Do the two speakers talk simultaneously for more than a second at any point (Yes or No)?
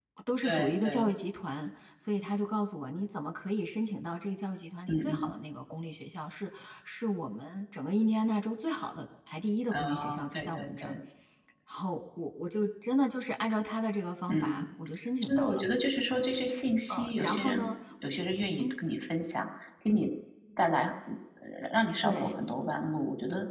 Yes